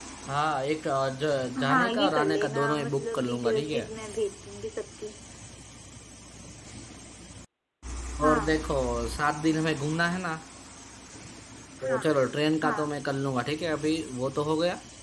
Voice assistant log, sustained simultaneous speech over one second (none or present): present